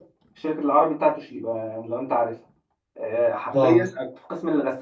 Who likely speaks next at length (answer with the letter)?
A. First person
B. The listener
A